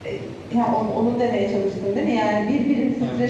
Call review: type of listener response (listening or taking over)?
listening